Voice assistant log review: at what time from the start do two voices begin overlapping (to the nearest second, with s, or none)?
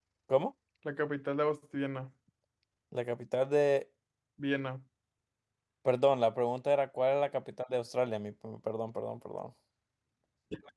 none